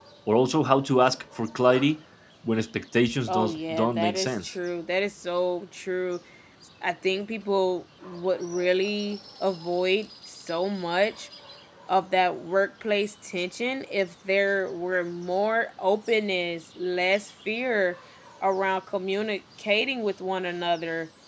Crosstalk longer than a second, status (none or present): present